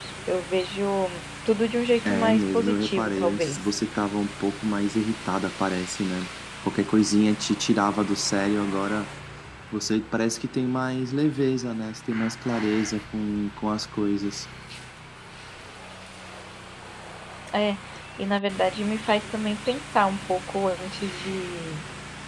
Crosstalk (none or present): present